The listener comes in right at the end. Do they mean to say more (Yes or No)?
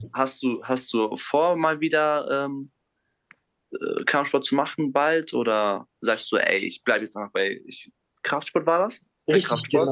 Yes